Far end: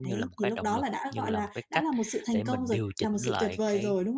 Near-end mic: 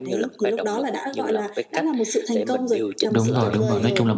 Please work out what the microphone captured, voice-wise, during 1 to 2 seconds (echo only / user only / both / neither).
echo only